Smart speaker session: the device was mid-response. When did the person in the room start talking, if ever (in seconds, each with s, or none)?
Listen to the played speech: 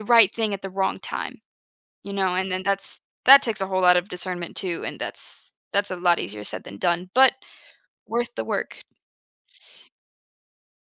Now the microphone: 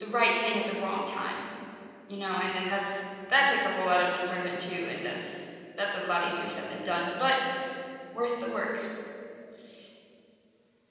none